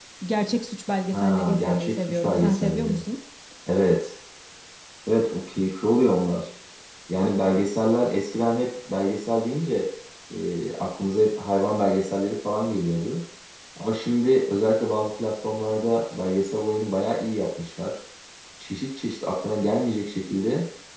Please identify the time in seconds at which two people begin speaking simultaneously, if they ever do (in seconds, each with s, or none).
1.1 s